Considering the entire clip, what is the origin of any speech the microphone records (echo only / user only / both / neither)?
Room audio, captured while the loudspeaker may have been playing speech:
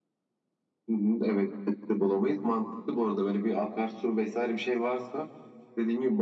echo only